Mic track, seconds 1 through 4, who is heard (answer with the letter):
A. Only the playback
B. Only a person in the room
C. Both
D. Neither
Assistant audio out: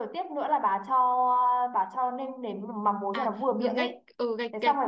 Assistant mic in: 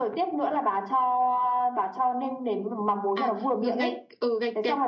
A